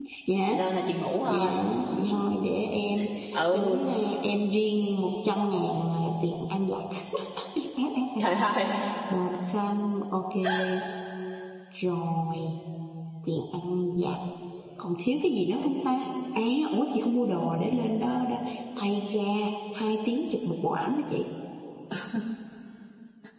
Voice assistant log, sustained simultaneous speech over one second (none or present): none